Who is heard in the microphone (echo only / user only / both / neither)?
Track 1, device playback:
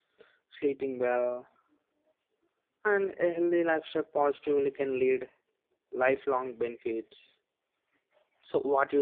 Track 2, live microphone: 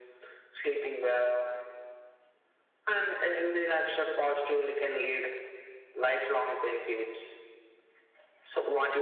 echo only